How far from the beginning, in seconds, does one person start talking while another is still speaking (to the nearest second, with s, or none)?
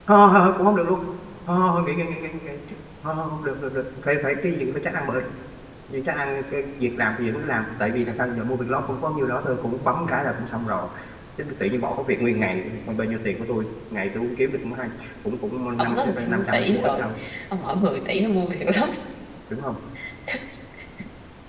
16 s